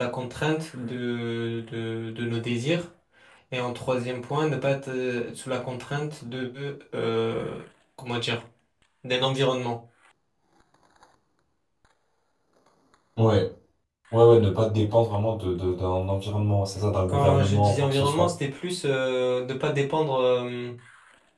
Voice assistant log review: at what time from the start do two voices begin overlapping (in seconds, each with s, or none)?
17.1 s